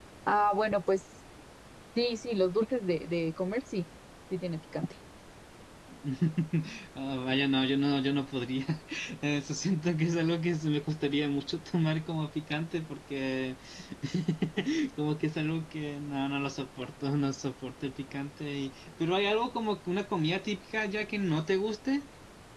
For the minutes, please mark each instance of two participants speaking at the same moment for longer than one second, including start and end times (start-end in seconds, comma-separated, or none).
none